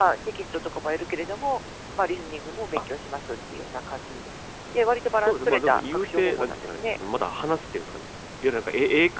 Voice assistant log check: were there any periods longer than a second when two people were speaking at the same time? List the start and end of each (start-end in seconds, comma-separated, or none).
5.1-6.9